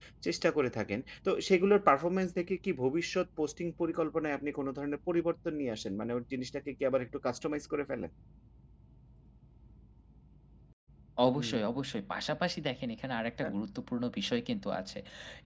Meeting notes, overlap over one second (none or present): none